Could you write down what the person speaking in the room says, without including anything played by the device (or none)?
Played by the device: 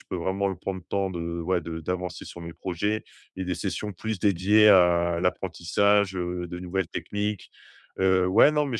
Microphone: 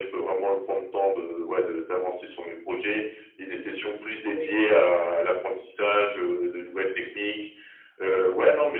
Oui,